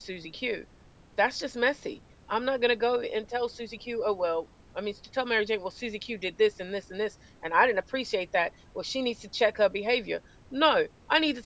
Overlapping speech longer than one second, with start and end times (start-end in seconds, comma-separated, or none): none